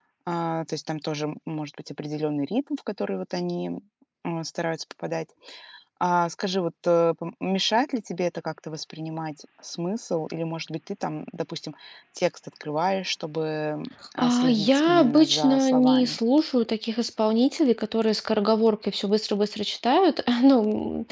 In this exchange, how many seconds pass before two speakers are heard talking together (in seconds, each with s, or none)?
14.2 s